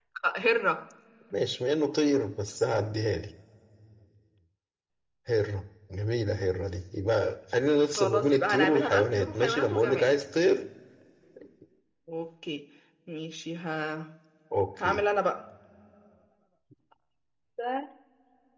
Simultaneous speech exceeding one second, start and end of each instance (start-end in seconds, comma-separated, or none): 8.0-10.1